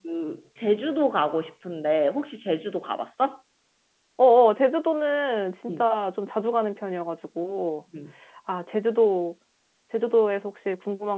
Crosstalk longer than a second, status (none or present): none